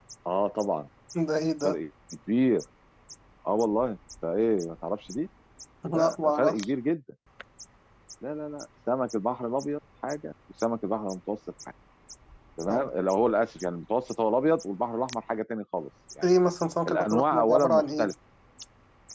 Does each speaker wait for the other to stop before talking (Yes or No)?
No